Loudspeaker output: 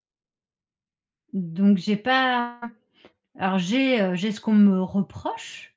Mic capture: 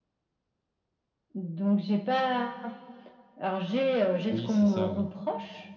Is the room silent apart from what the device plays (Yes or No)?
No